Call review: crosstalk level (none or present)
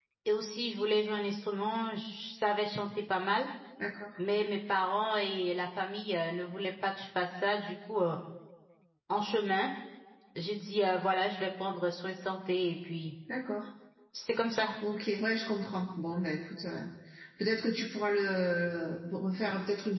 none